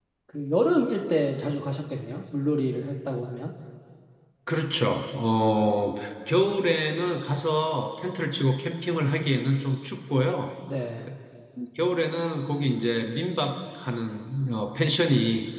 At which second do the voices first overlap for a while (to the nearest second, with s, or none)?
none